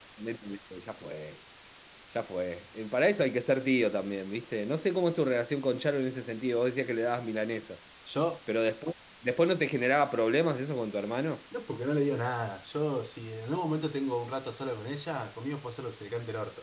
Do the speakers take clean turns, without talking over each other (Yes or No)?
Yes